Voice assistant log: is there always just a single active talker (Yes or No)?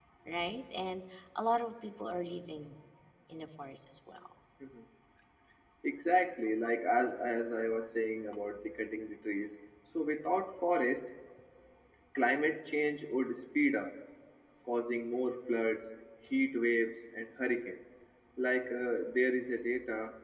Yes